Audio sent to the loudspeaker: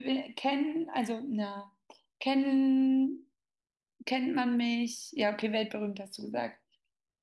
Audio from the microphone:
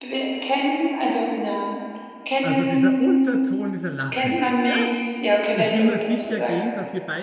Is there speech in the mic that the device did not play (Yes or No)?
Yes